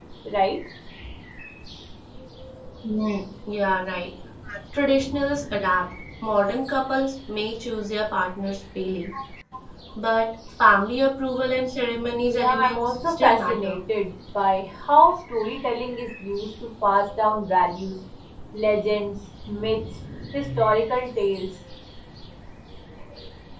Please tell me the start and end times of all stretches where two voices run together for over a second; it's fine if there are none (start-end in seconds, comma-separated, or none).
12.2-13.8